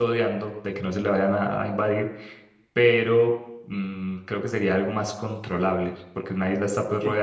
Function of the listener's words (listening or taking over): listening